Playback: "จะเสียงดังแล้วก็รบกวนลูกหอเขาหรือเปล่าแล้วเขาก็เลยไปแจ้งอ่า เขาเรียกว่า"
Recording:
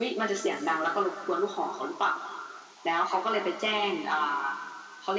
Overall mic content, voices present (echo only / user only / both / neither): echo only